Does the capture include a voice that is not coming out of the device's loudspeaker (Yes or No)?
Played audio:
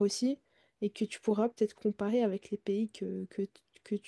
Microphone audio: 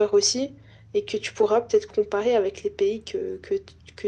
No